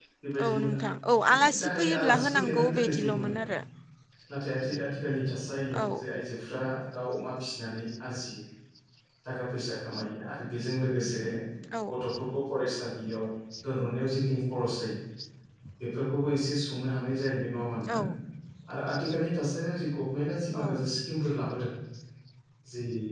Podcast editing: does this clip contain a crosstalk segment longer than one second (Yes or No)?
Yes